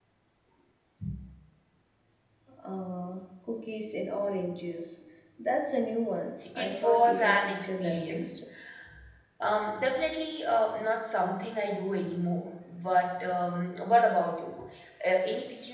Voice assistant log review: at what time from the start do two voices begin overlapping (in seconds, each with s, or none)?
6.6 s